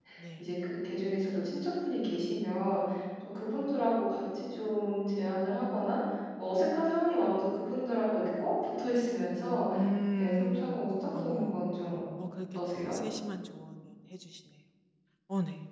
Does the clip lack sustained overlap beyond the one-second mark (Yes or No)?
No